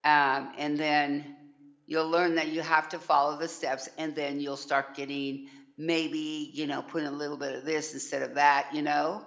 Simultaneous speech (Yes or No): No